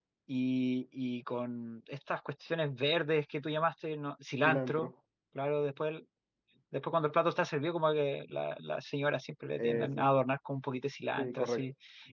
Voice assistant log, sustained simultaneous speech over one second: none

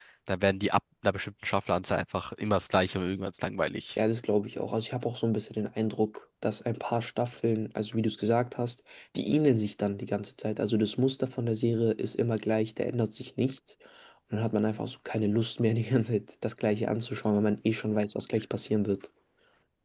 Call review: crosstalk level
none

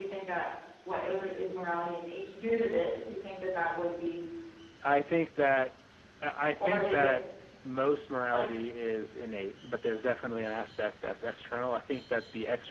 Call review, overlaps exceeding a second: none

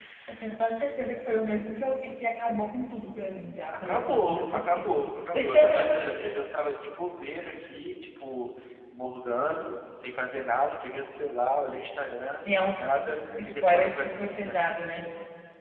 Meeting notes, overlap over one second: present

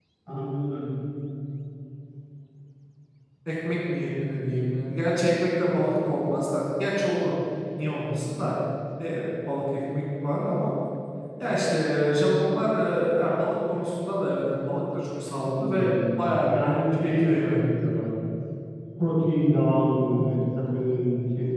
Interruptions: present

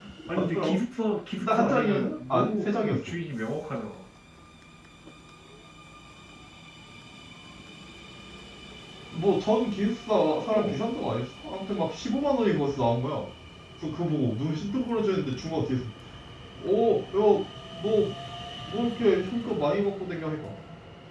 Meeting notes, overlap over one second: present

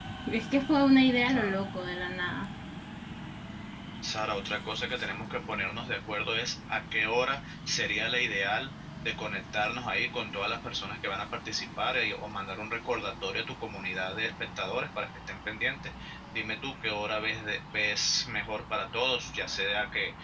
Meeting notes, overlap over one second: none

